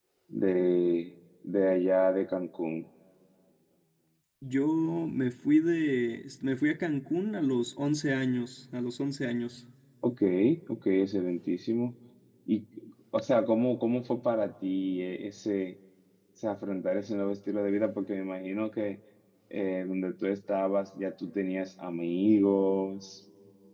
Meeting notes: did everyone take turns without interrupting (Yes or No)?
Yes